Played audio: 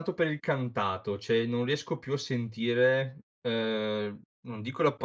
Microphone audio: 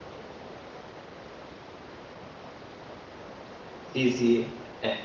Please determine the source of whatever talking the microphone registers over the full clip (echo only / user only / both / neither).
user only